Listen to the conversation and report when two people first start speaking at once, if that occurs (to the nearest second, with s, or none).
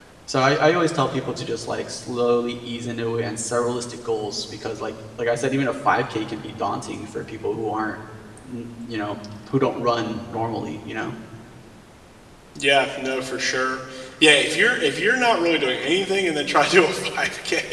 none